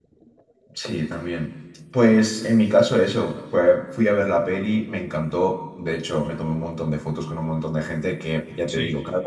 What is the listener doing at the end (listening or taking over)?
listening